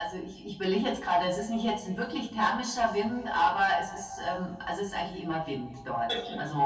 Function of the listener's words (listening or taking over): listening